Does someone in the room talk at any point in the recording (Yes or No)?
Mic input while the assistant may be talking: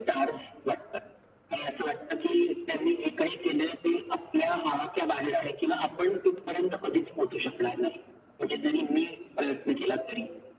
No